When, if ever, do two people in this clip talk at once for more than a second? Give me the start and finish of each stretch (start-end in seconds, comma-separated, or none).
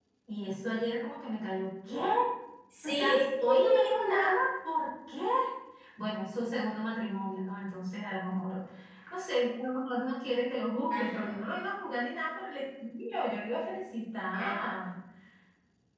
2.8-4.4